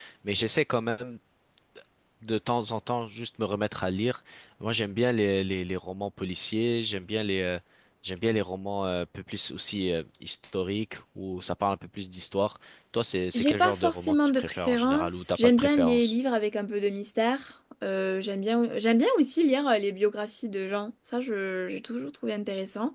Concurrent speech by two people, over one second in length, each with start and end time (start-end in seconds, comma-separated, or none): 13.3-16.1